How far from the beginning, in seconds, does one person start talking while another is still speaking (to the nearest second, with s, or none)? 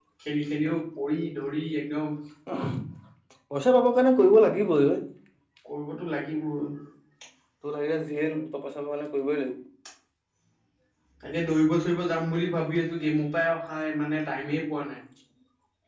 none